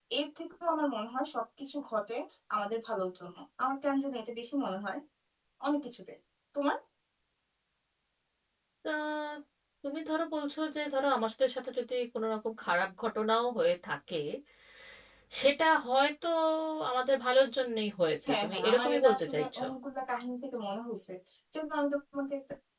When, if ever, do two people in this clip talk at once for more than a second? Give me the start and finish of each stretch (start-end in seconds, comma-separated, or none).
18.3-19.6